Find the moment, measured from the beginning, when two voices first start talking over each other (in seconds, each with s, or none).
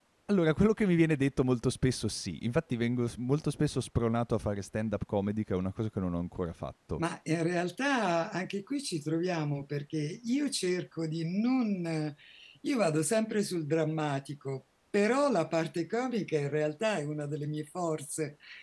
none